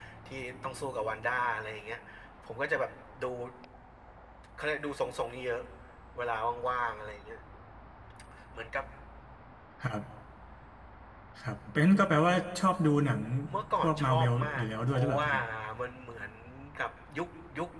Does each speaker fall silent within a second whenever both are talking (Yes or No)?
No